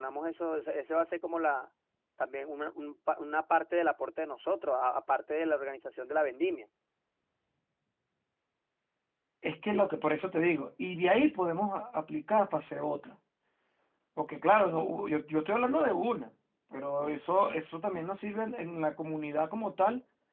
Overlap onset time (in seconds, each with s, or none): none